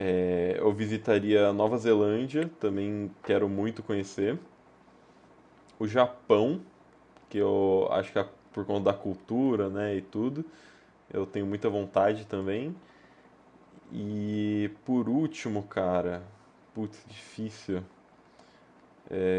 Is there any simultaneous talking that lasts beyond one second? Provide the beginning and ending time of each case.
none

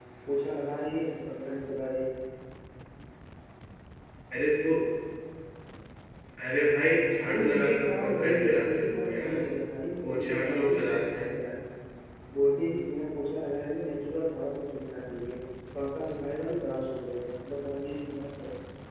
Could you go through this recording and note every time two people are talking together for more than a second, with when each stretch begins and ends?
7.2-9.4, 10.0-11.3

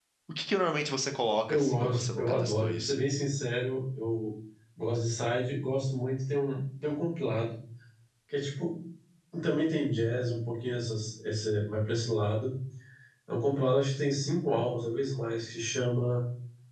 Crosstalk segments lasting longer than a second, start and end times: 1.5-3.0

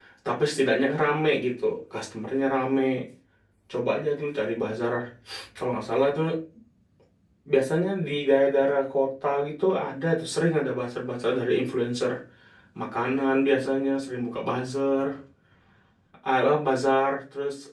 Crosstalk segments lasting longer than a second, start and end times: none

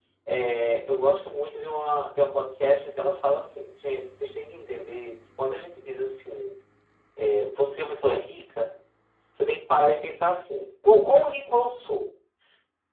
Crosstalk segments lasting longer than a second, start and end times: none

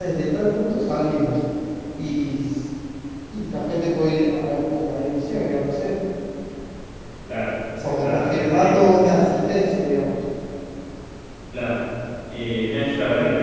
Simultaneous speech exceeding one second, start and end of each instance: 7.8-9.1

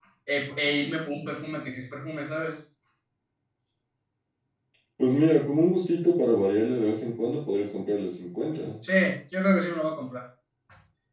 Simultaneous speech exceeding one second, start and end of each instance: none

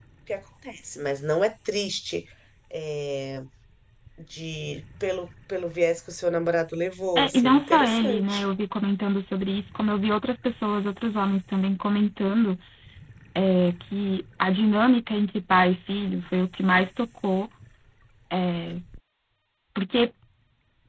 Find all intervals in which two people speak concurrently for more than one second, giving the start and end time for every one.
7.2-8.4

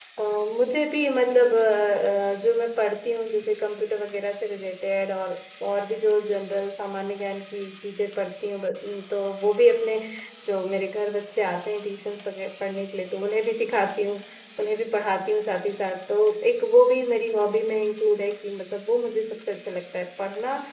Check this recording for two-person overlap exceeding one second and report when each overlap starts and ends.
none

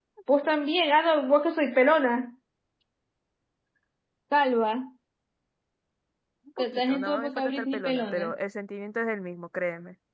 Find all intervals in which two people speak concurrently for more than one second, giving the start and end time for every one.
6.6-8.2

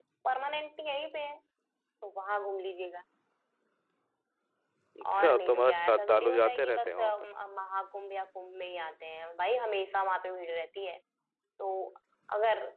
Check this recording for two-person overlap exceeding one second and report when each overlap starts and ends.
5.1-7.2

